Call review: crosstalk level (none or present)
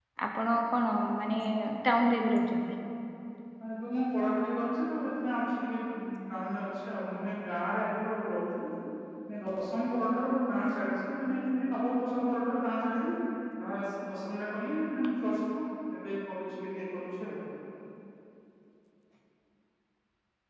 none